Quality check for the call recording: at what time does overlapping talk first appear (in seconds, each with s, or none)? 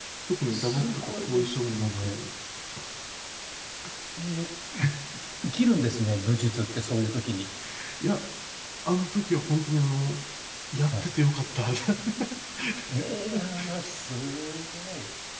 0.5 s